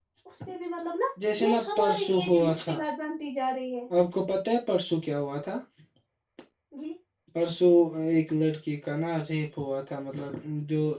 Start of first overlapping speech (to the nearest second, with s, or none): 1 s